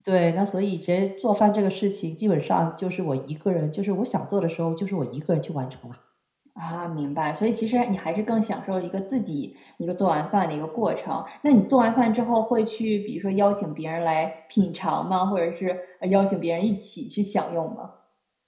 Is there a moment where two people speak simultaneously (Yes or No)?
No